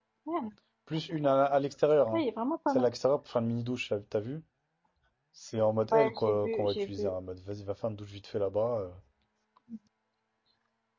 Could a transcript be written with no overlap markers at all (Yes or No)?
No